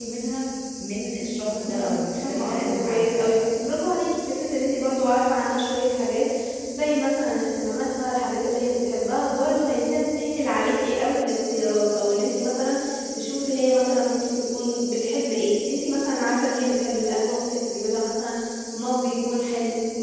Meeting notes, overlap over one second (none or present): present